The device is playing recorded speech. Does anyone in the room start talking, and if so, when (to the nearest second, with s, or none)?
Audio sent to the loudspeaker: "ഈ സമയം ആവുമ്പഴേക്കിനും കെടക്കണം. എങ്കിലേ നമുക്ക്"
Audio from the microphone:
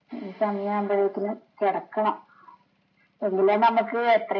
none